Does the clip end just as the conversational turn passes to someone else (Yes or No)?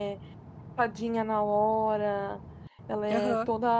No